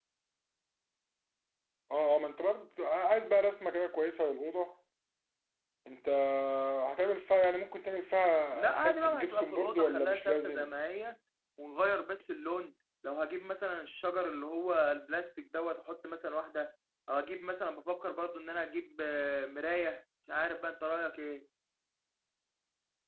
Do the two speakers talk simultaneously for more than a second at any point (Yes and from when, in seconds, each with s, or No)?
Yes, from 8.5 s